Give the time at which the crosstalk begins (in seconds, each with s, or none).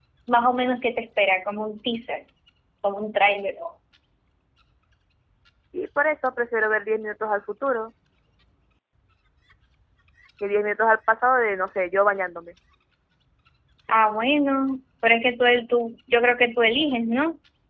none